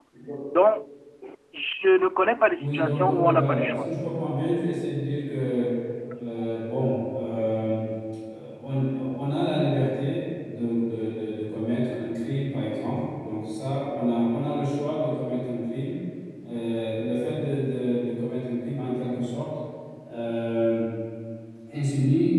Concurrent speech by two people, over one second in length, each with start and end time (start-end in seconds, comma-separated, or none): 2.6-3.9